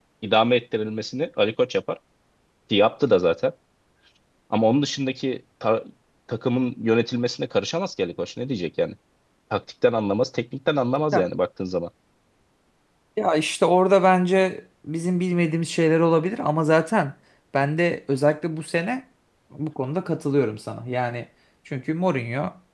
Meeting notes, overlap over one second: none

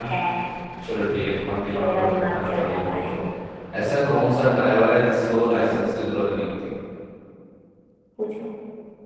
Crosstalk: present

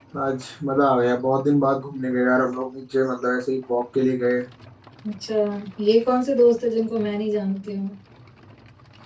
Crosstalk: none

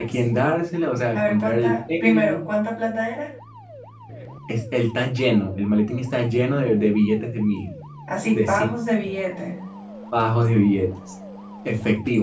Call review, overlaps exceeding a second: present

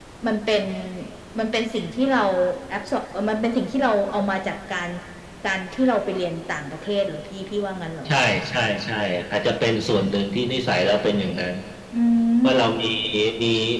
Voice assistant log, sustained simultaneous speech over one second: none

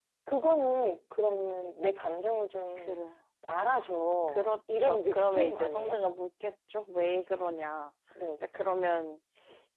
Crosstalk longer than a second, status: present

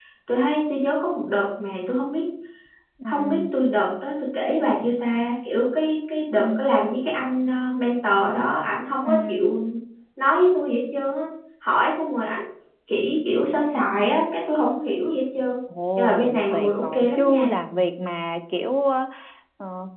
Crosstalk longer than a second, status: present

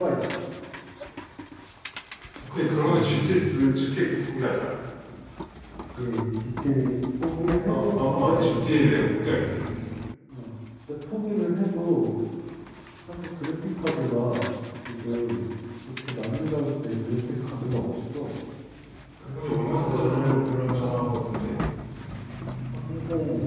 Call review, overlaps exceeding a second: present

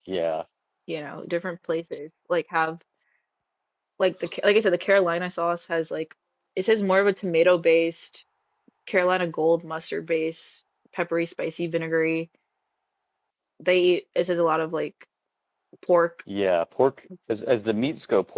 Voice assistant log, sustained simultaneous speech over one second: none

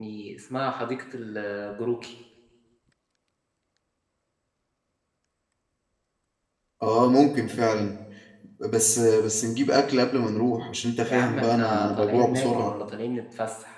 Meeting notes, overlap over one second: present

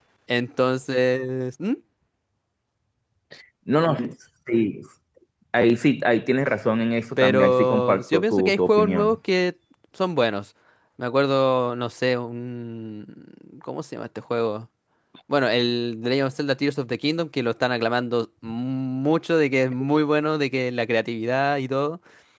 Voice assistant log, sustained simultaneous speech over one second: present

